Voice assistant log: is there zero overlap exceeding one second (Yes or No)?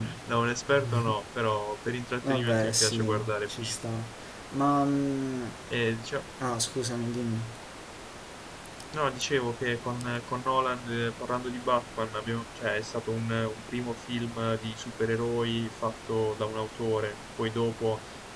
No